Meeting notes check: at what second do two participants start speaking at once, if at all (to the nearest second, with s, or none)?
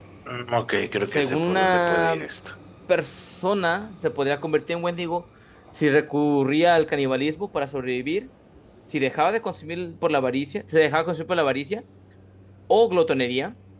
1 s